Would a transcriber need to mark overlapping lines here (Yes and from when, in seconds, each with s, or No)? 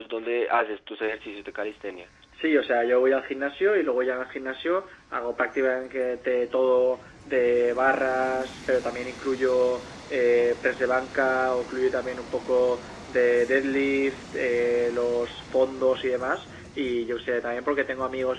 No